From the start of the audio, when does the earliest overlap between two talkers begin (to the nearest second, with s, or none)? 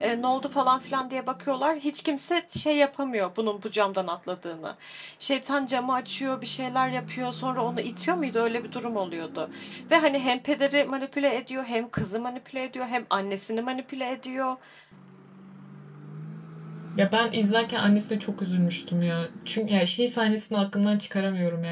none